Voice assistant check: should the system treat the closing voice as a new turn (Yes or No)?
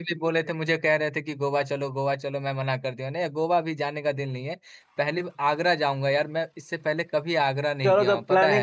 Yes